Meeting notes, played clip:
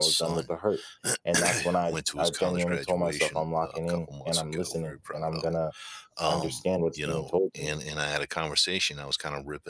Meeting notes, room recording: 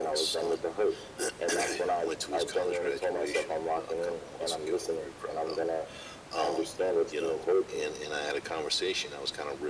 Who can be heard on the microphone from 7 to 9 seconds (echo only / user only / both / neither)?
echo only